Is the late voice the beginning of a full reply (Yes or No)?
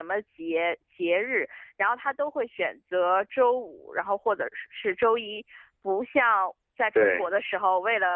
No